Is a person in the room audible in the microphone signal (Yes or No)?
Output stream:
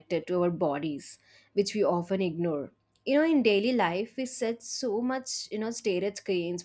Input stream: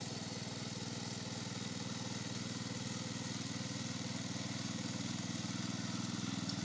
No